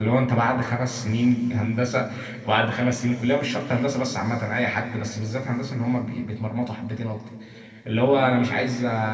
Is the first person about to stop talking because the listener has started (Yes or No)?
No